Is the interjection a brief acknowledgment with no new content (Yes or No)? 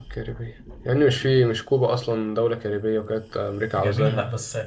No